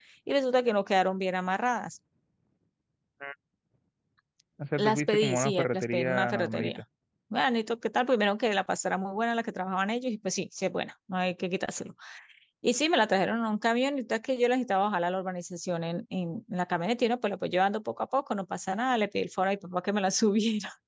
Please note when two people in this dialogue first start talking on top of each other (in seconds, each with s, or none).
4.8 s